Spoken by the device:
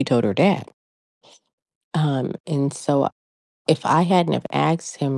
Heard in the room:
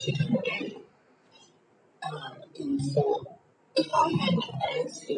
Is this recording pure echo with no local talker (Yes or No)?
Yes